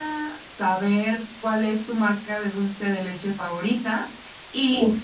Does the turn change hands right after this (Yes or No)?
No